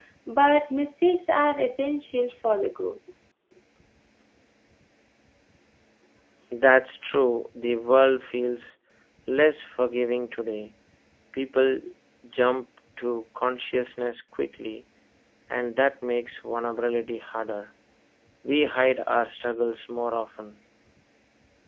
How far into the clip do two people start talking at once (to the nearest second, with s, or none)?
none